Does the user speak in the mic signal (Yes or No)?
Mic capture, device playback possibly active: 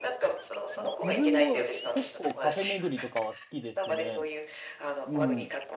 Yes